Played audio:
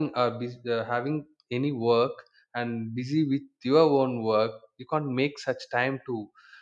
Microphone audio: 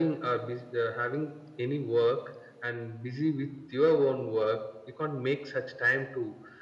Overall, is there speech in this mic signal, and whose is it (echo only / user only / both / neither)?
echo only